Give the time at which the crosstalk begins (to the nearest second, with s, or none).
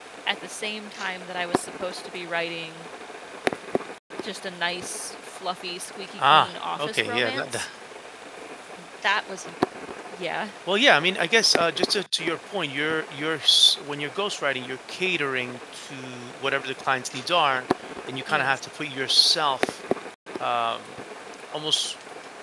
6 s